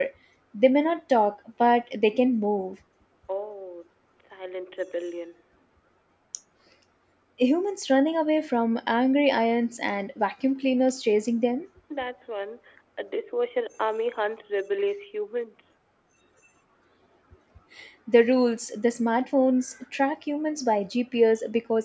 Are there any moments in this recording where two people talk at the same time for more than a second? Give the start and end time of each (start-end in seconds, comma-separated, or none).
none